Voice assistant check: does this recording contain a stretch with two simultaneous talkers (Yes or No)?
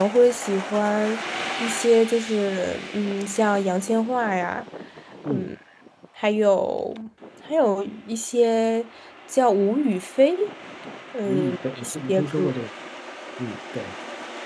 Yes